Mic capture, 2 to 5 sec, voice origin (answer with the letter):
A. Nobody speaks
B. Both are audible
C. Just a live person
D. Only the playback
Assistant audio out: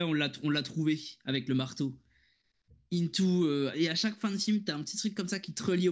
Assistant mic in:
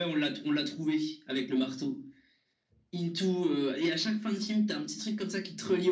D